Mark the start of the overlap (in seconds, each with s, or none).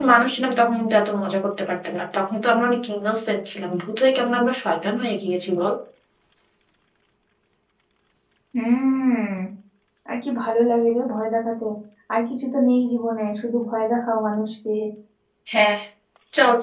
none